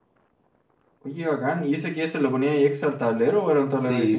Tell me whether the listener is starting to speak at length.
Yes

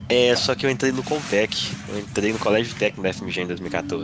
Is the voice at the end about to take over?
No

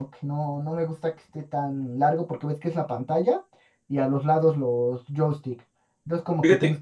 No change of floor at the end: Yes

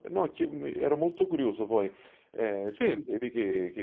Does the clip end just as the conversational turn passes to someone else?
No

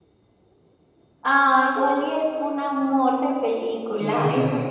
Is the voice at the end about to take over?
Yes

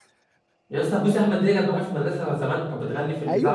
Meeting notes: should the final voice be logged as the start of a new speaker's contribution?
Yes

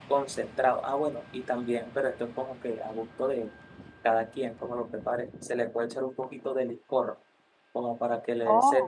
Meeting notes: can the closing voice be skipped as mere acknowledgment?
Yes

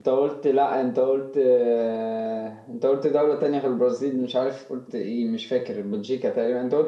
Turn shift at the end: Yes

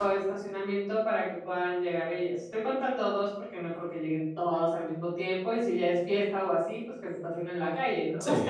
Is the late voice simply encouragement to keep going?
No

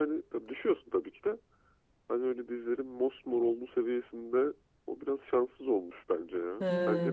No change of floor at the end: No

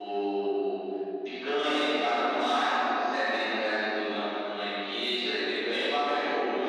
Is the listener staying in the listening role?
Yes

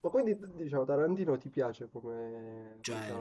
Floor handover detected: Yes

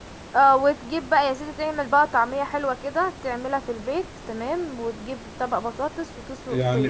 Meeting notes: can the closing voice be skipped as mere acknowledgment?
No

